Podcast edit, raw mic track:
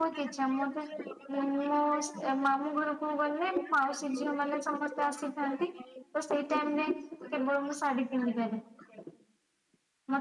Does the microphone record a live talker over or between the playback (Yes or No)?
Yes